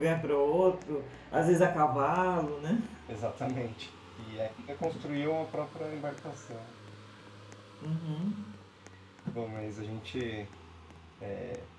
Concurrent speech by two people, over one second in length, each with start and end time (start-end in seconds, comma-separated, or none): none